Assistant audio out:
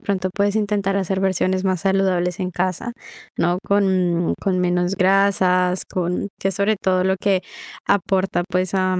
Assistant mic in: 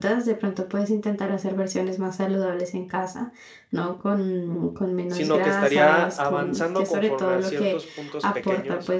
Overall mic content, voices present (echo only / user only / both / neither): both